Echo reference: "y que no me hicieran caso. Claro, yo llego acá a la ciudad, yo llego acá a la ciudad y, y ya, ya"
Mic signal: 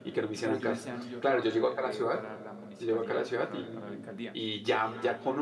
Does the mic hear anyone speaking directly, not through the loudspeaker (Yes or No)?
Yes